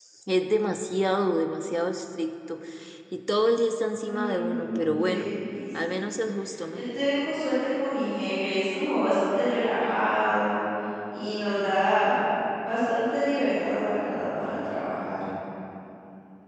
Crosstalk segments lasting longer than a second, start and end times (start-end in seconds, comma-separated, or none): 4.0-5.2